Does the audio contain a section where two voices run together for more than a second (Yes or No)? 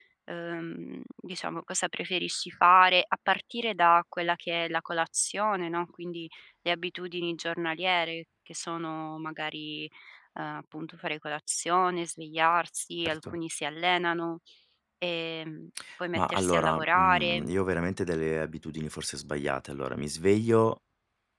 Yes